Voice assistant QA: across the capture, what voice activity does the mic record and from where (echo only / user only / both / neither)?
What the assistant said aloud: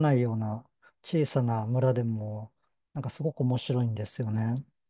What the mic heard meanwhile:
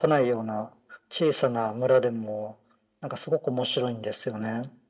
echo only